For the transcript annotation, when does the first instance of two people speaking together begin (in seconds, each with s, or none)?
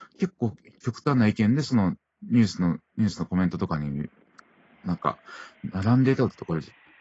none